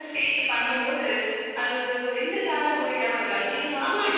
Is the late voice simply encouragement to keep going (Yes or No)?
No